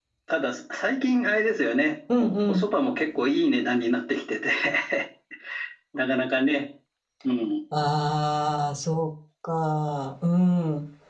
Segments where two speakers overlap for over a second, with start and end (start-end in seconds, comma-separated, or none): none